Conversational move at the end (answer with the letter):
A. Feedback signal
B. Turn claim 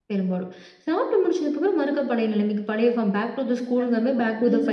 B